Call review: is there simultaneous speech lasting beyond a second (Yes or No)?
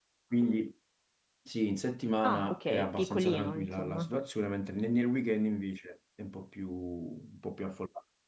Yes